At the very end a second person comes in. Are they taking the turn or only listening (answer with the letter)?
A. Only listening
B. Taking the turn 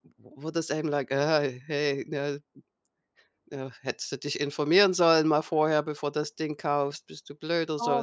B